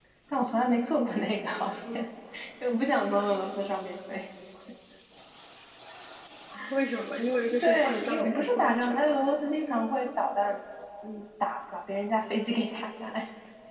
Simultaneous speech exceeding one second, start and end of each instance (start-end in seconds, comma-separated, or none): 7.6-9.2